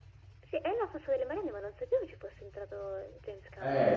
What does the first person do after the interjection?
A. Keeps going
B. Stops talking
B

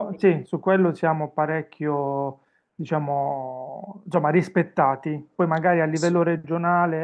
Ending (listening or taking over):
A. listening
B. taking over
A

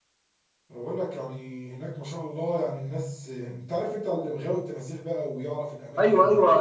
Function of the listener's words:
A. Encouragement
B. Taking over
B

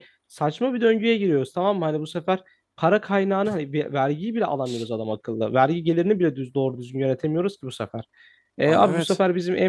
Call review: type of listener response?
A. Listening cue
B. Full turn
A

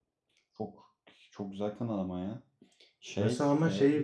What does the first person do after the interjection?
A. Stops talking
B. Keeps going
A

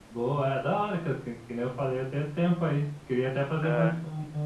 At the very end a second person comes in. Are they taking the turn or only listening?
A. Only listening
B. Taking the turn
A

